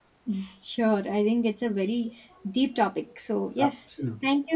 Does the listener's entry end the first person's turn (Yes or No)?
No